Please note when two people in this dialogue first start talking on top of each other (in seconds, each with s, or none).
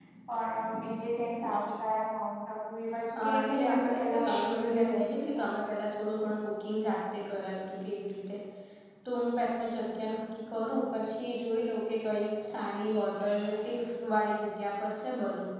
3.1 s